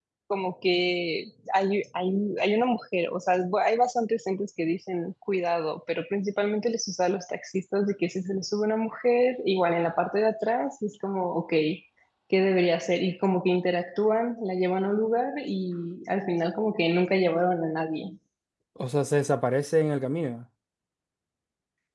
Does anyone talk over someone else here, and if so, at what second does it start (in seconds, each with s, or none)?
none